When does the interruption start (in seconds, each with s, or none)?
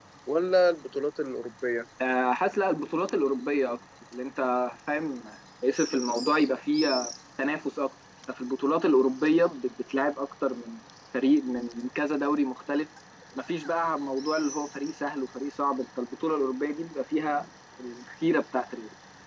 none